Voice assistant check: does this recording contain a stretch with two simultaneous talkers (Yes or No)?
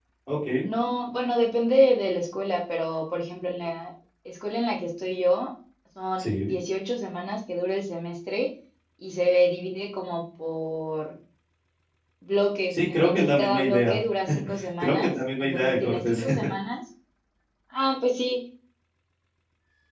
Yes